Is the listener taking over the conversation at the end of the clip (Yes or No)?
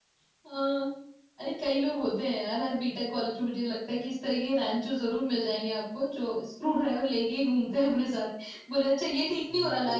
No